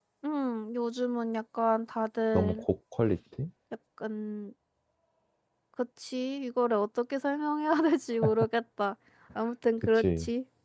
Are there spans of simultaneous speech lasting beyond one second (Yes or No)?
No